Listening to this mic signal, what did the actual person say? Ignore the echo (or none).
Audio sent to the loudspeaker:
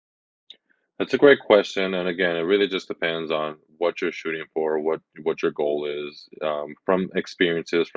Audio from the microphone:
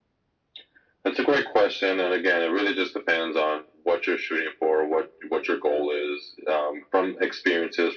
none